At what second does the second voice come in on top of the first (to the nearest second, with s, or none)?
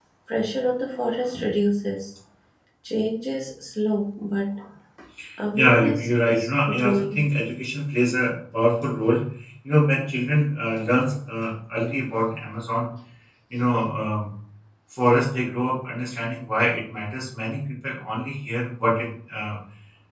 6 s